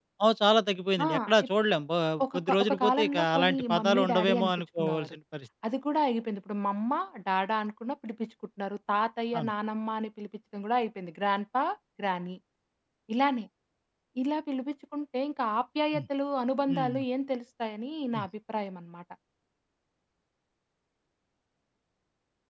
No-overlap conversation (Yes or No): No